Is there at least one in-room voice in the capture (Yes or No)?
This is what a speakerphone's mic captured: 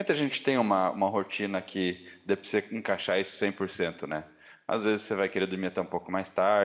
Yes